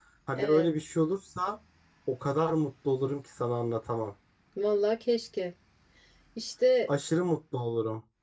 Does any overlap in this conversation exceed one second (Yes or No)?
No